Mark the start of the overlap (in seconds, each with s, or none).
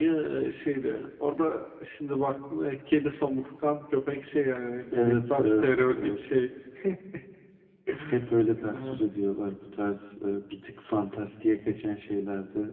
4.9 s